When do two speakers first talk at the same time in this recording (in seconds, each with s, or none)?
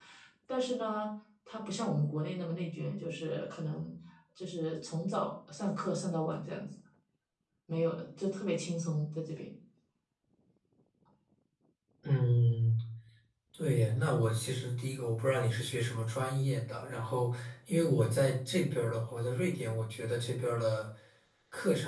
none